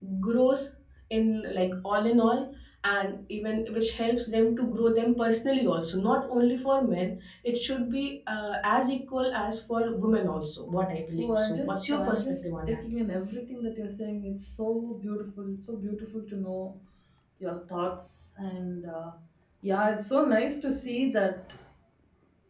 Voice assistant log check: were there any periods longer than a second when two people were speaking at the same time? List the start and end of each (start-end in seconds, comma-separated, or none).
11.2-12.8